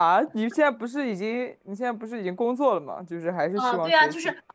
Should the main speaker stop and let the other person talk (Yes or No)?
Yes